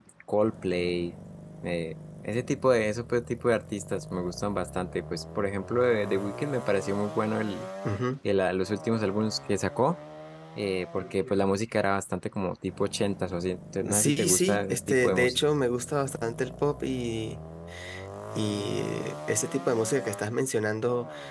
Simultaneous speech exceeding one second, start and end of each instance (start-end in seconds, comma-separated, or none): 13.9-15.4